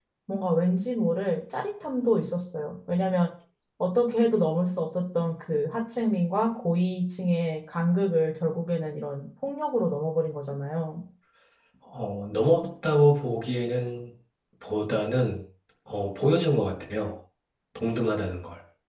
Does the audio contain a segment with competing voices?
No

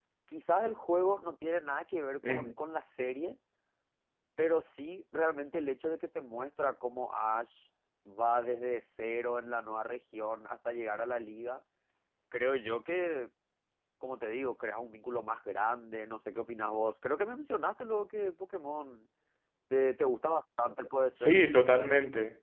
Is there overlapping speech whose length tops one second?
No

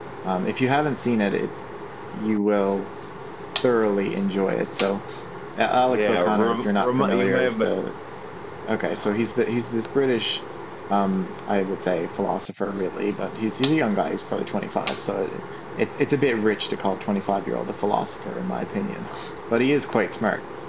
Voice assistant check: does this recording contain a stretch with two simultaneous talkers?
Yes, from 5.8 s

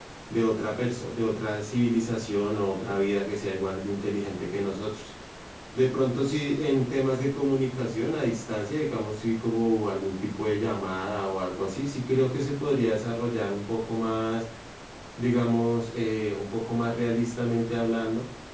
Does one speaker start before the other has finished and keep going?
No

